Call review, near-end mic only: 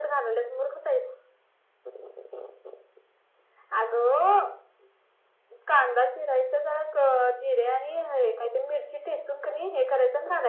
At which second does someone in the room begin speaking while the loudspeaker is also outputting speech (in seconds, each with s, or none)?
none